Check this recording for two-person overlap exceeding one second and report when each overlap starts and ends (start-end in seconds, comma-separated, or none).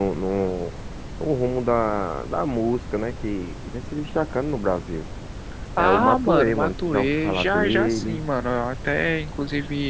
5.8-8.2